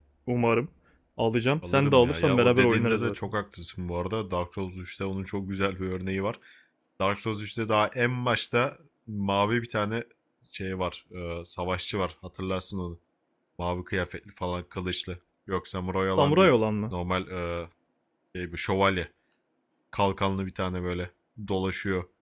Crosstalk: present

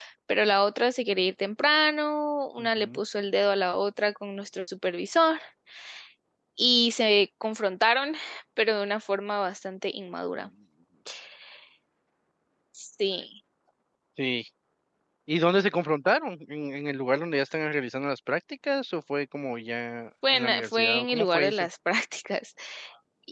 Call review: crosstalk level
present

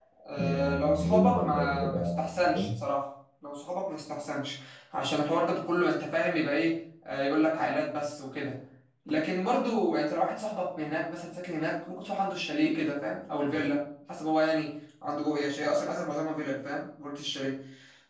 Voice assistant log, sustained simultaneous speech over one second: present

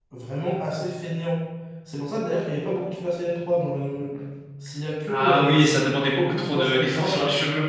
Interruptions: present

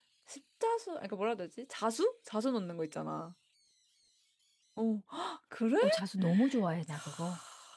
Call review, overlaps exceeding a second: none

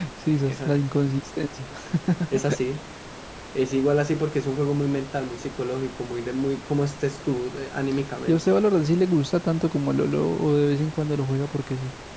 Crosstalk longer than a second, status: none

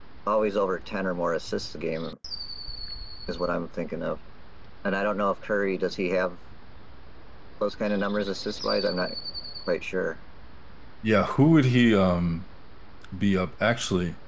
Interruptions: none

